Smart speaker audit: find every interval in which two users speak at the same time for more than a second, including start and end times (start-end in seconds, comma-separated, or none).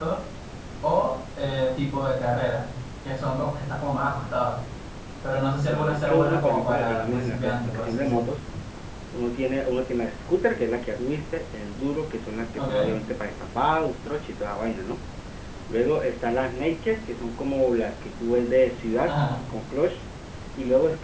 5.7-8.3